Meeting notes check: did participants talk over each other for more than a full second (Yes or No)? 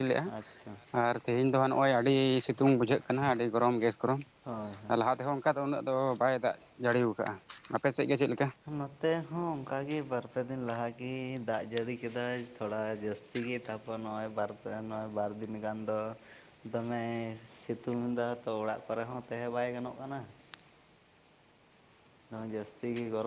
No